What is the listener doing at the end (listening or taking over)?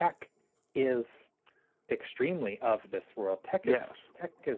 listening